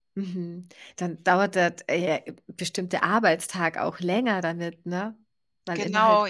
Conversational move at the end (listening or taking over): taking over